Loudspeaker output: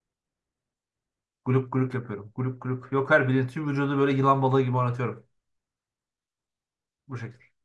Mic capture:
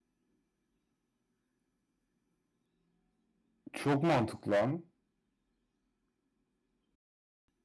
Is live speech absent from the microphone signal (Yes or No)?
No